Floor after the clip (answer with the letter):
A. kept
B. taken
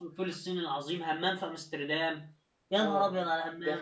B